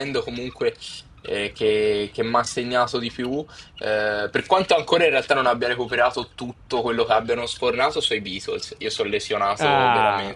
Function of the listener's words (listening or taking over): taking over